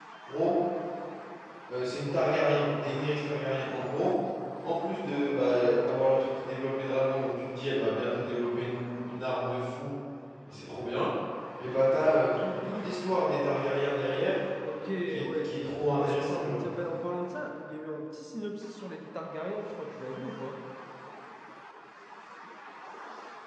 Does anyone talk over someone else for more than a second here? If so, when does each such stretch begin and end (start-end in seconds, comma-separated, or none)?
15.1-16.6